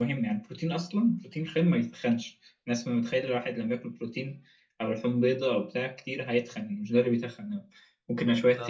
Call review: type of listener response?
listening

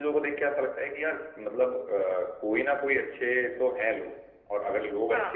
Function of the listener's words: listening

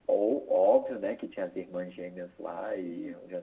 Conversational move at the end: taking over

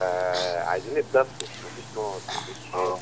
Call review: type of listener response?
listening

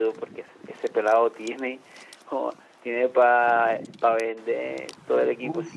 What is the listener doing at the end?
taking over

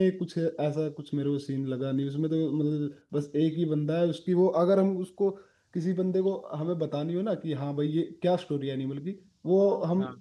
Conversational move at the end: listening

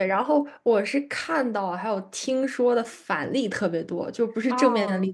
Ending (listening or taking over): listening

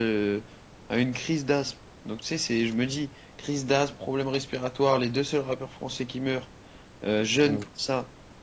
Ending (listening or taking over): listening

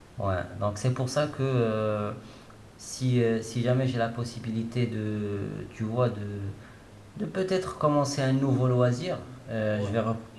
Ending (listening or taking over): listening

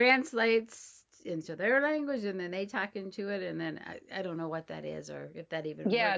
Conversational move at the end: taking over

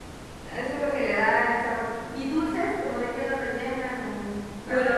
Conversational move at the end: taking over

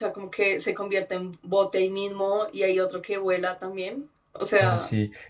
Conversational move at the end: taking over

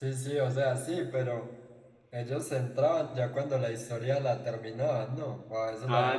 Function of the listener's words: taking over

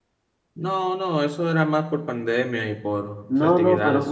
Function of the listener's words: taking over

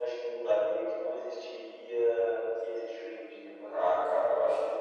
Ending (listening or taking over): taking over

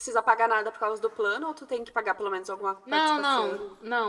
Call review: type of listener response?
taking over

